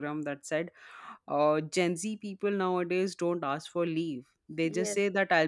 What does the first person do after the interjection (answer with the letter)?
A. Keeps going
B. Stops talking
A